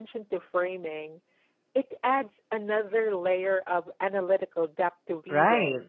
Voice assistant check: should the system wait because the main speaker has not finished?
No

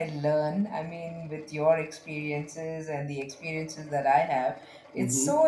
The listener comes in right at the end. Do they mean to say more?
No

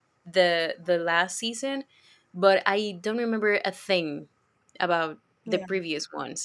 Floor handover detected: No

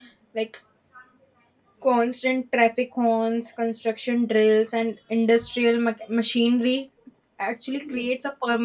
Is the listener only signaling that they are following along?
Yes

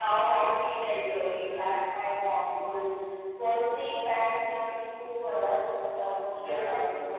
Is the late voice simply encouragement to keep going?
Yes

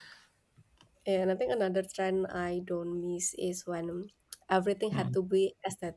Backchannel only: Yes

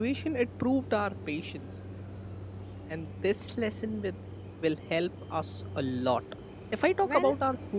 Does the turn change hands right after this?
No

